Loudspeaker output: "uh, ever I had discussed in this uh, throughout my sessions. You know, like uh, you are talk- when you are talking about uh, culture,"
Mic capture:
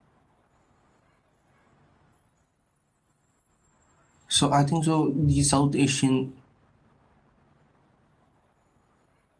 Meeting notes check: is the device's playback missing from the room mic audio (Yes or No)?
Yes